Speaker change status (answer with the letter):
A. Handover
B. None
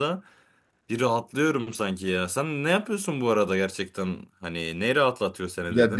A